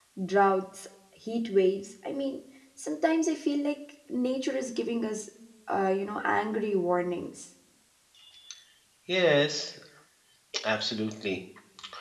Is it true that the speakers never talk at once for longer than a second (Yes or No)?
Yes